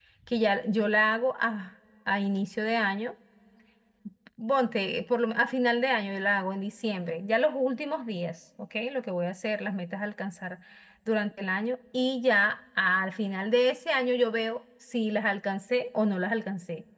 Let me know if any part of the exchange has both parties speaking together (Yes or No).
No